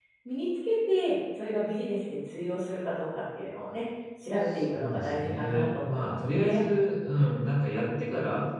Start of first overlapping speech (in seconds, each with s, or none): 4.4 s